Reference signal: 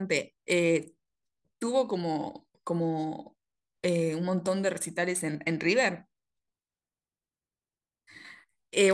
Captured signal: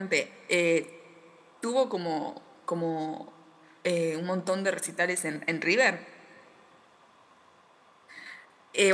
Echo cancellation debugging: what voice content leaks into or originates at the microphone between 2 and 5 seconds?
echo only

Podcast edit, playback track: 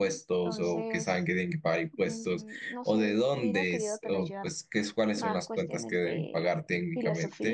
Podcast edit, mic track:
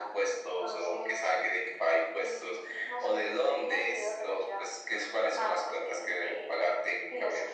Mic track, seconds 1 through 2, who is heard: echo only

